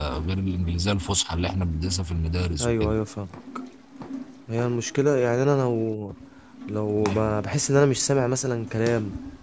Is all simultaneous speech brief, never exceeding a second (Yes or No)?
Yes